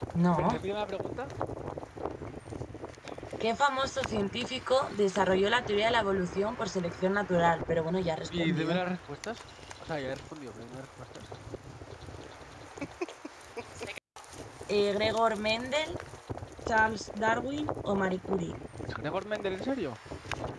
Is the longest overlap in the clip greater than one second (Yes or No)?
No